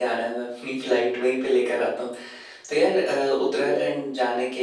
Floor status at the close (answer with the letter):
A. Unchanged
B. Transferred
A